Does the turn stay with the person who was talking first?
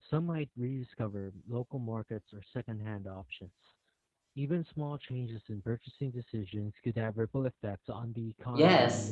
No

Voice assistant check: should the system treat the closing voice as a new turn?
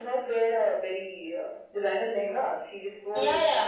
Yes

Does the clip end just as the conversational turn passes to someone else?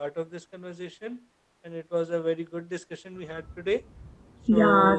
Yes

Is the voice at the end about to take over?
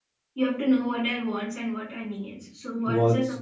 No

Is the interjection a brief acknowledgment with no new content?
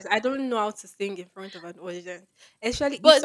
Yes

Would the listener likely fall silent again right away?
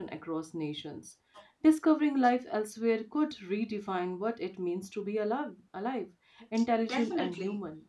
No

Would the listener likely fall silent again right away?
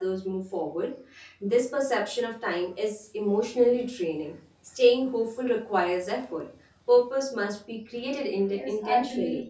No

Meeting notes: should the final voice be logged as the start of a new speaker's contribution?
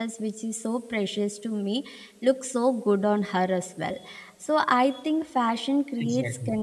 No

